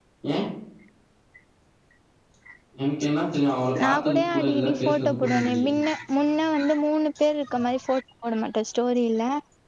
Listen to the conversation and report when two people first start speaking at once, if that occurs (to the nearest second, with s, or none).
4 s